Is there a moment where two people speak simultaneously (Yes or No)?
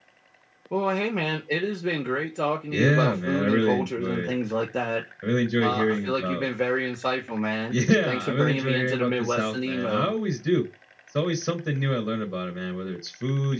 Yes